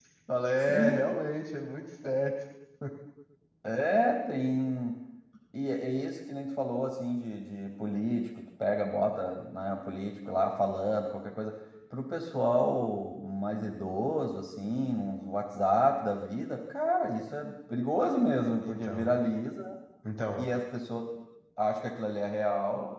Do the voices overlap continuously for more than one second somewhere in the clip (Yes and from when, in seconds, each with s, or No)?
No